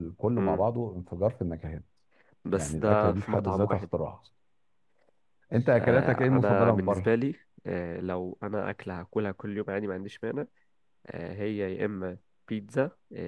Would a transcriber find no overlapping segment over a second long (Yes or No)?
No